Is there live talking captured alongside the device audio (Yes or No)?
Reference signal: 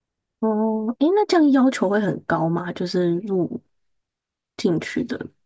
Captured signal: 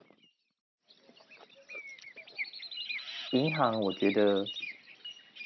Yes